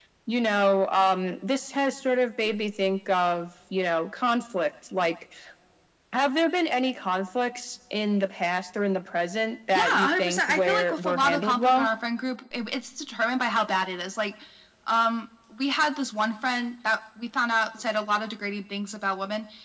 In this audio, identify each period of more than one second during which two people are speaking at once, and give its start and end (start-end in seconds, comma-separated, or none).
9.8-11.9